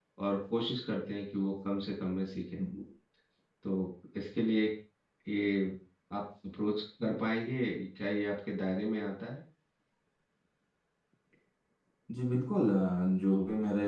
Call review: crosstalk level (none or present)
none